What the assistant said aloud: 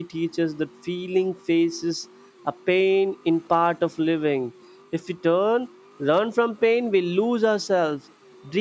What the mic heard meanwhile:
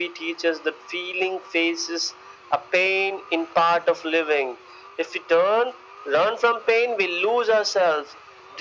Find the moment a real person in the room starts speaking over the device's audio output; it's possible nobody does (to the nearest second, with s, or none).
none